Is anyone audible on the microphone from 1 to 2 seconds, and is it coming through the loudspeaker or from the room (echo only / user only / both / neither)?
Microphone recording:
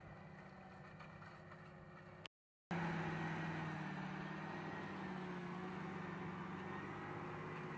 neither